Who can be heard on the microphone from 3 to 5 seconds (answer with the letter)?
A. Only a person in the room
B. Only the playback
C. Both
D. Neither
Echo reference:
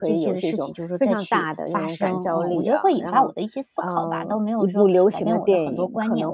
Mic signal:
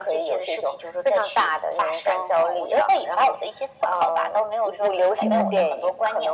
B